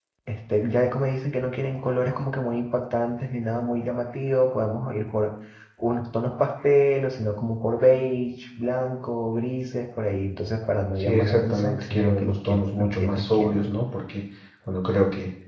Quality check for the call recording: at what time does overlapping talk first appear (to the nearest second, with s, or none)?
11 s